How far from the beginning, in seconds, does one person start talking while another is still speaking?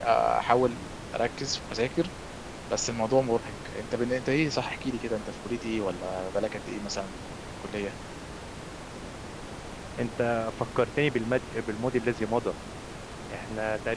none

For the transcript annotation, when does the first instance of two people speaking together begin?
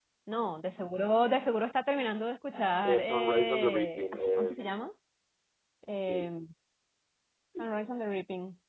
2.9 s

